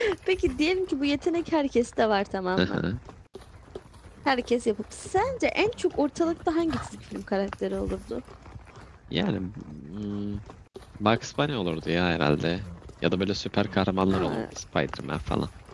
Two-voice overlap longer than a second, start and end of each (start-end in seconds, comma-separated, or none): none